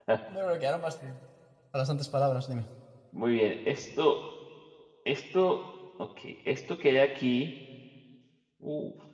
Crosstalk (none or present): none